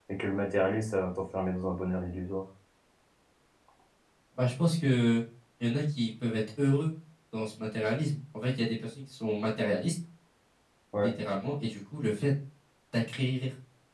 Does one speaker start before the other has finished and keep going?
No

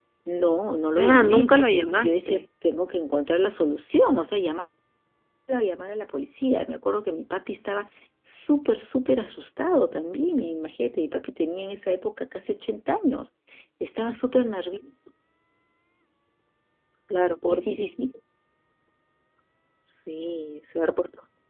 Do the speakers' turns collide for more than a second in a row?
Yes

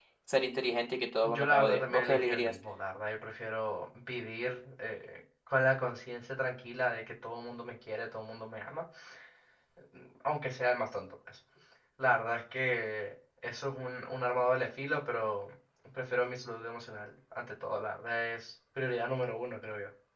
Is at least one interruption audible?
Yes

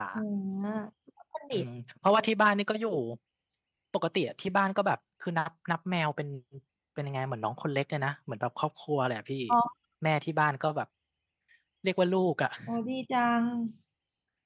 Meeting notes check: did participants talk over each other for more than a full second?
No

